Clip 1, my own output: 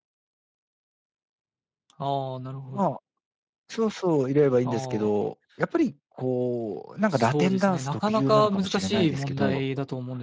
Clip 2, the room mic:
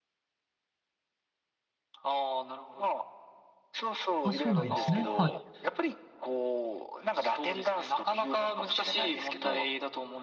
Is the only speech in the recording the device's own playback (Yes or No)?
No